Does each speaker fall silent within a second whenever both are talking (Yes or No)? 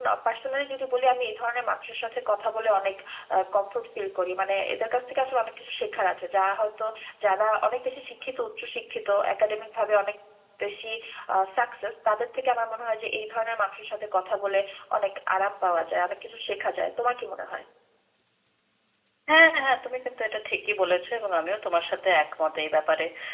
Yes